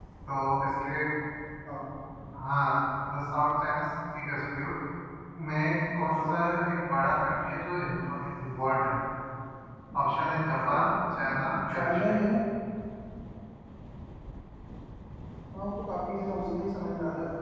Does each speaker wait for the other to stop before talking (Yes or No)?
No